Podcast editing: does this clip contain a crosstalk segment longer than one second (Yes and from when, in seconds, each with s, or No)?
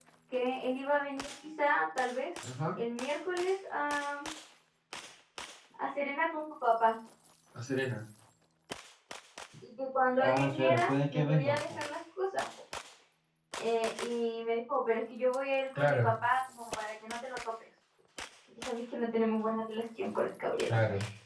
Yes, from 10.2 s